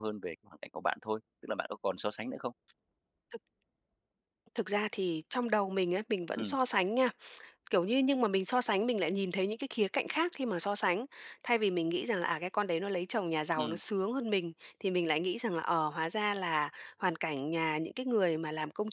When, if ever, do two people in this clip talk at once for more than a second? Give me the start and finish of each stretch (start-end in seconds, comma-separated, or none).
none